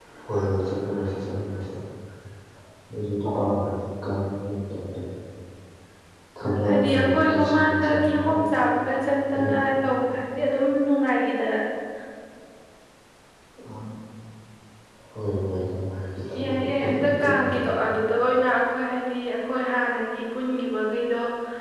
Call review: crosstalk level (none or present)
present